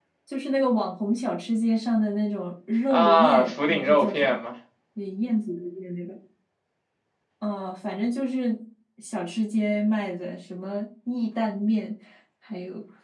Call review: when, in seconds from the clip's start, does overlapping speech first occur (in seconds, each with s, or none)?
2.9 s